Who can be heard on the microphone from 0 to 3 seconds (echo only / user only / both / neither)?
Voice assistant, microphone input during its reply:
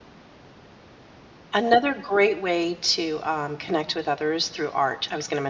user only